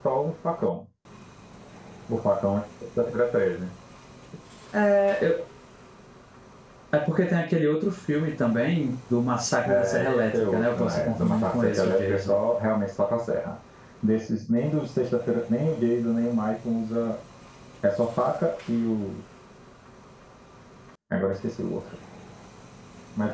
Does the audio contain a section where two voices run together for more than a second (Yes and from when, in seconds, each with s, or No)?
Yes, from 9.7 s